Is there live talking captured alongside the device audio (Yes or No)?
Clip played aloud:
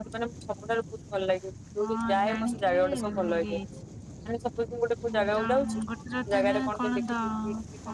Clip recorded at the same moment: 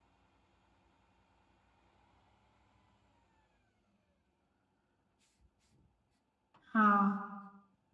Yes